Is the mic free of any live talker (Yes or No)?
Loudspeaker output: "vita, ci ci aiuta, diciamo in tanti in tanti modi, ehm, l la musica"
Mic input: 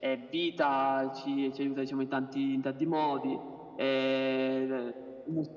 Yes